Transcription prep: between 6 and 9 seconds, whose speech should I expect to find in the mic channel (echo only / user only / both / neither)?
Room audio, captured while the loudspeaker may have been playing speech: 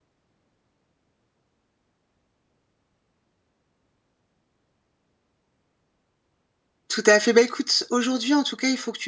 user only